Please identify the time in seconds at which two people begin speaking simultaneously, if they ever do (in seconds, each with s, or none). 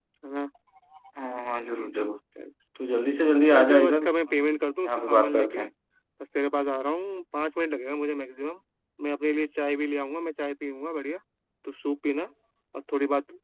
3.5 s